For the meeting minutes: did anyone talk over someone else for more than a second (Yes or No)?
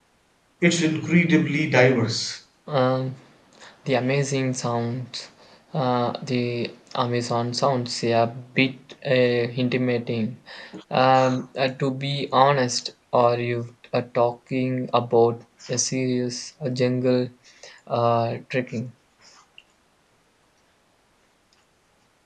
No